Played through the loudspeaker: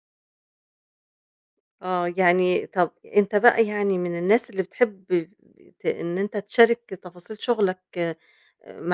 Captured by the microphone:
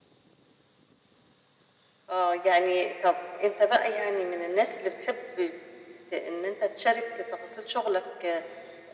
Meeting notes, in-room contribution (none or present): none